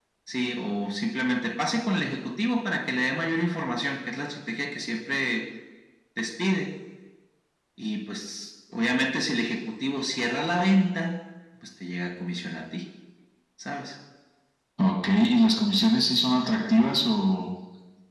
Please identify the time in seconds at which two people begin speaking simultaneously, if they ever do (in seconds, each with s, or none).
none